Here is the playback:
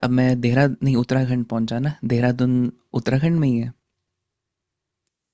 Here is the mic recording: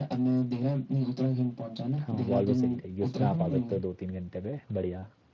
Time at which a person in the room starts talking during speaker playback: 2.0 s

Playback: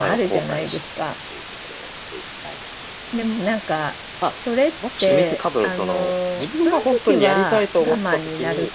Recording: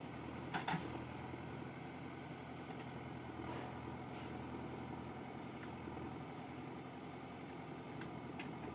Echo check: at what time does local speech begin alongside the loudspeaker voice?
none

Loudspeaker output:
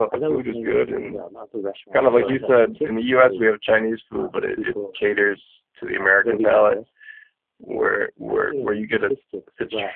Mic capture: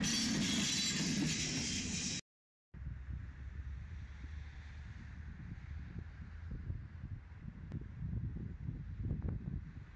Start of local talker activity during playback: none

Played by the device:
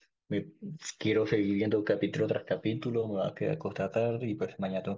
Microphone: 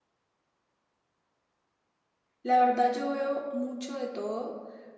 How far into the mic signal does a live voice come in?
2.4 s

